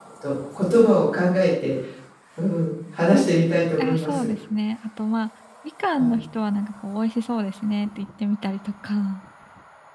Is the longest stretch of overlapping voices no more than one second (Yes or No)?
Yes